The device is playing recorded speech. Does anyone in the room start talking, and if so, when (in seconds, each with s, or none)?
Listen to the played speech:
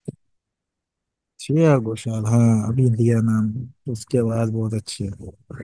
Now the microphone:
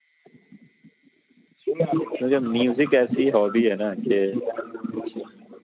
2.2 s